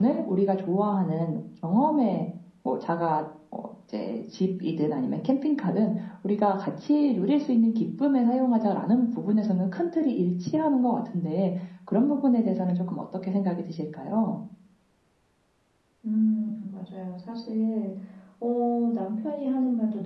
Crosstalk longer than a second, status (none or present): none